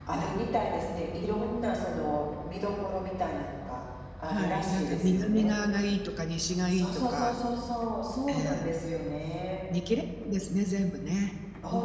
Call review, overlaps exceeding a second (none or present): present